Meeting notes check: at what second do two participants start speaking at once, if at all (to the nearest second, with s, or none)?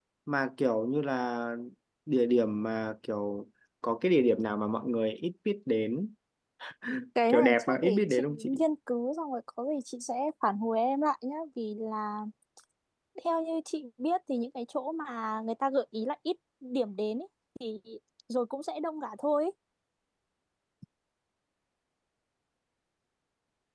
7 s